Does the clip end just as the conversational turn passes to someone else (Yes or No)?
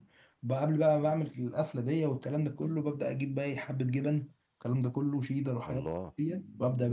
No